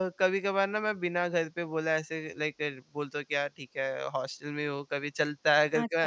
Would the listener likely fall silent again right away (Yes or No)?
No